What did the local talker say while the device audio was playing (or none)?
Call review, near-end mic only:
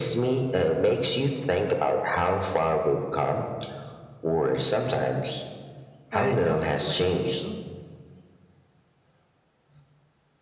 I don't blame you.